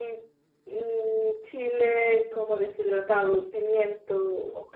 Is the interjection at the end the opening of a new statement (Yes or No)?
Yes